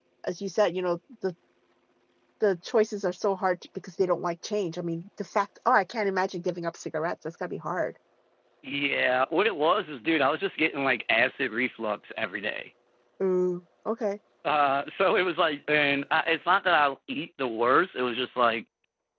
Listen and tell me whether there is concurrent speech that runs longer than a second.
No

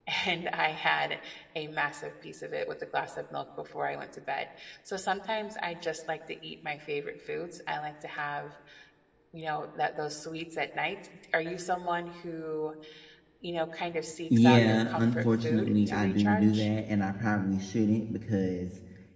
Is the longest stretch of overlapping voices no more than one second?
No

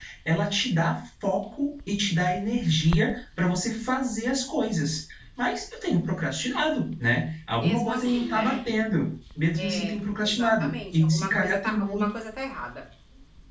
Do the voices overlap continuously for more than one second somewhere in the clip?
Yes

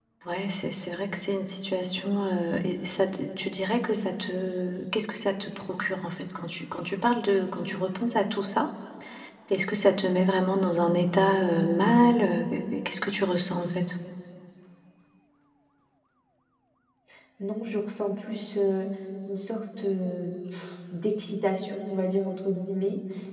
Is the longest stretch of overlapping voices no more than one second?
Yes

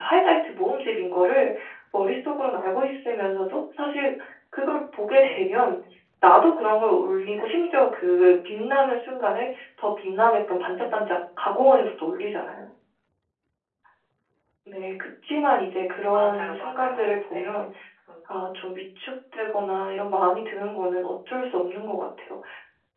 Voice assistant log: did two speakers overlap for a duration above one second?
Yes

